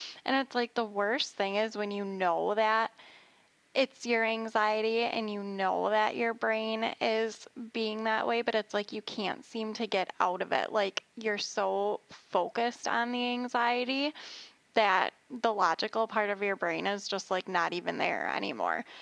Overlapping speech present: No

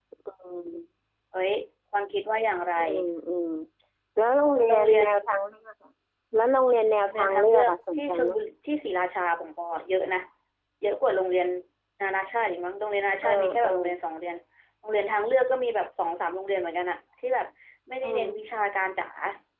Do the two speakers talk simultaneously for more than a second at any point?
Yes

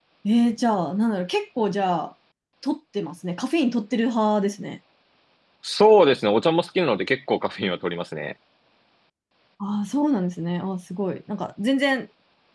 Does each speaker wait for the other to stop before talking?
Yes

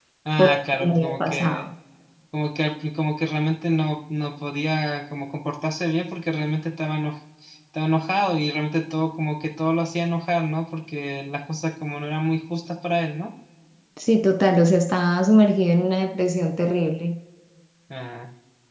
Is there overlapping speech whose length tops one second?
Yes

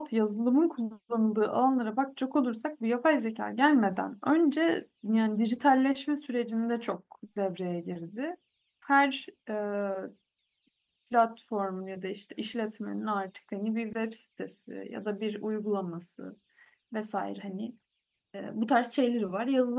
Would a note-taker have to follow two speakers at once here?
No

